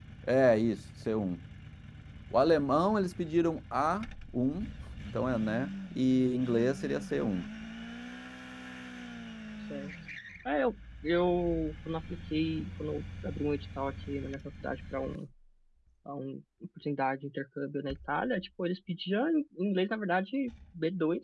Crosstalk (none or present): none